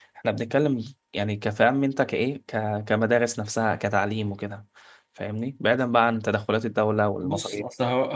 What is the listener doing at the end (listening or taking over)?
taking over